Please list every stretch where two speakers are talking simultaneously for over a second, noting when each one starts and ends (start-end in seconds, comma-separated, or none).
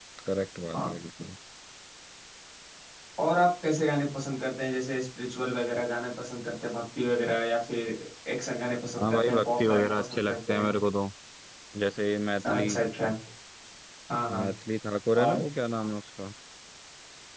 9.0-10.7